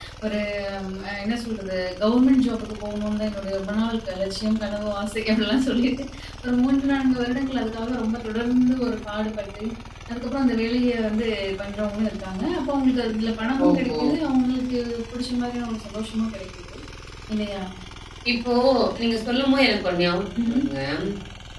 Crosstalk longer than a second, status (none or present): none